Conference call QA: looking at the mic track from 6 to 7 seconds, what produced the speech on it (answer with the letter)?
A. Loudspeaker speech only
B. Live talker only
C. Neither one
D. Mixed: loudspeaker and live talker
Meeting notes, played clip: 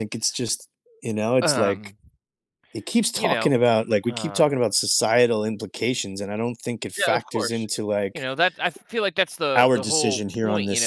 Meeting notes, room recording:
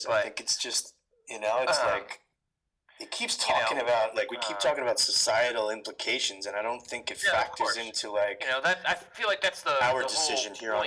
A